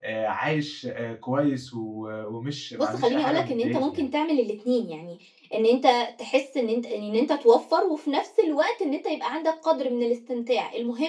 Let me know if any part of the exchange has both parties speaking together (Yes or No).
Yes